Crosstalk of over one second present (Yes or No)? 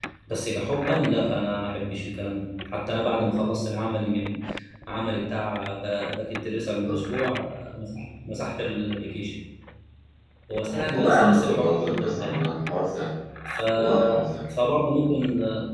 Yes